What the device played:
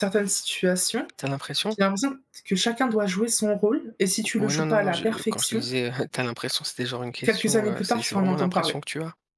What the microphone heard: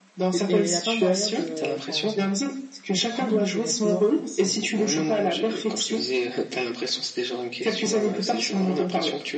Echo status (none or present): present